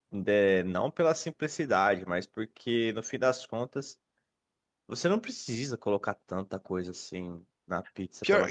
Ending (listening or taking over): taking over